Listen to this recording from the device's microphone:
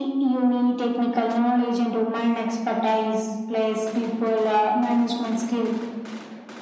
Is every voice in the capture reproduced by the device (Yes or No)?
Yes